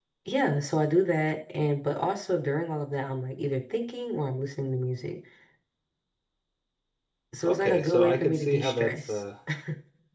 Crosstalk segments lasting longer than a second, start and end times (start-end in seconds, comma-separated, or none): 7.4-9.2